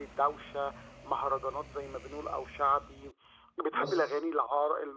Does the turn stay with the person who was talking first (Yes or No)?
Yes